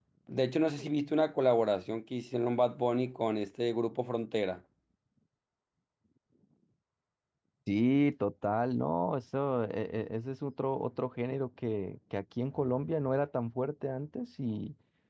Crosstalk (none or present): none